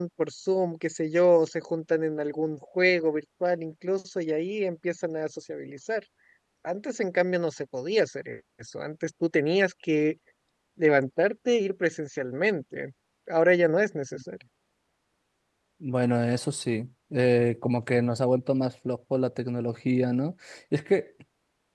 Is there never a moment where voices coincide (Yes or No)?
Yes